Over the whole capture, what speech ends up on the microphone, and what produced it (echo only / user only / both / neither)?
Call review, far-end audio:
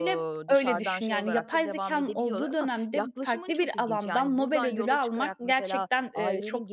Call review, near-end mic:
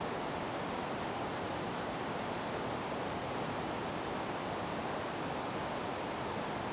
neither